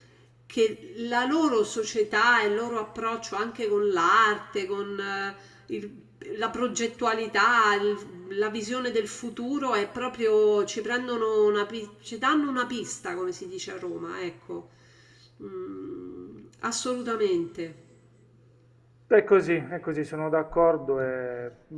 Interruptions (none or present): none